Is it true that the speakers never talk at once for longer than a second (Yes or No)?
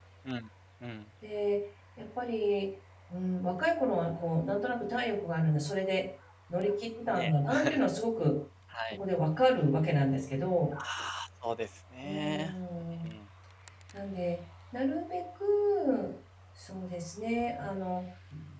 Yes